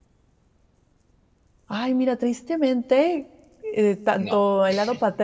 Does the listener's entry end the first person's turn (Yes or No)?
No